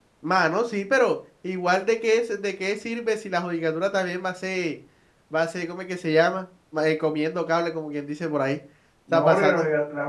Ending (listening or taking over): taking over